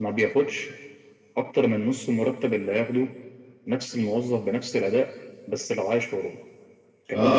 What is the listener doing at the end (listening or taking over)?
taking over